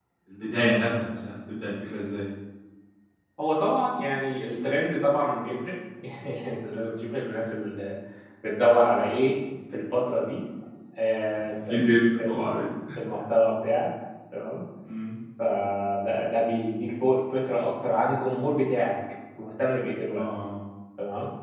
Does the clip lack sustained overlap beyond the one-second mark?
Yes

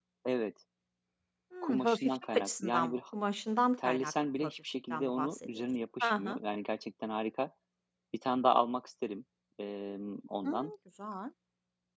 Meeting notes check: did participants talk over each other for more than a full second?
Yes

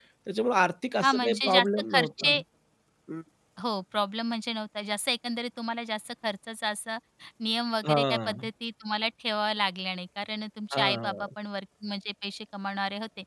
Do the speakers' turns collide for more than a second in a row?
Yes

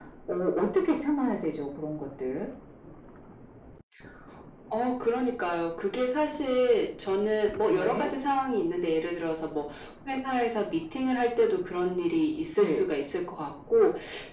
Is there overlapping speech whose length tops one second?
No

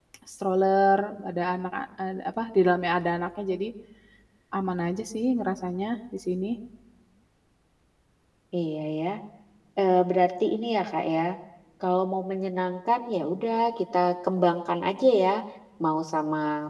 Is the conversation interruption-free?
Yes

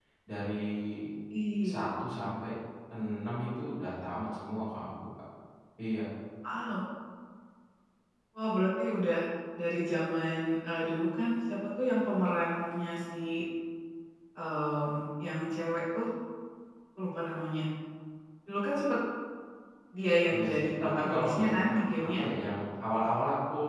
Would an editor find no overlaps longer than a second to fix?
No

